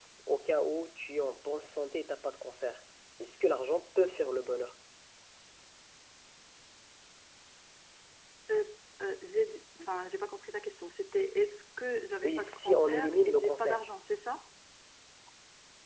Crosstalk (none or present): present